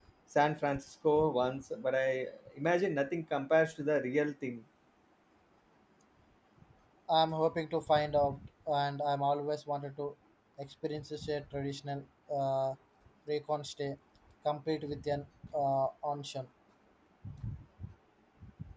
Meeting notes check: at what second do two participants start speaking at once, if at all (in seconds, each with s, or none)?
none